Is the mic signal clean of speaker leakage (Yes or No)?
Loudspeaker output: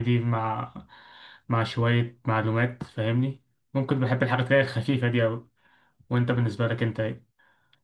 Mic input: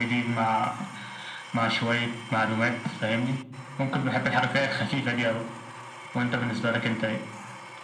No